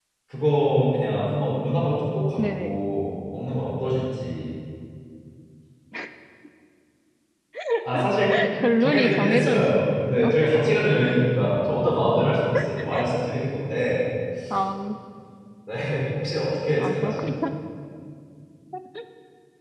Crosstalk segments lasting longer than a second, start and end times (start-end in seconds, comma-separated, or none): 8.8-10.3